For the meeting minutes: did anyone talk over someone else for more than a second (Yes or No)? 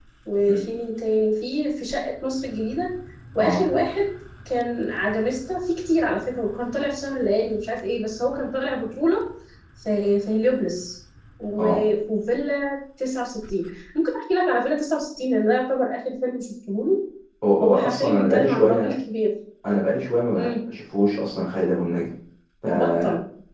Yes